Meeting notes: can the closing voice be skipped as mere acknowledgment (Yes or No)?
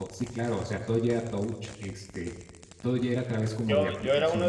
No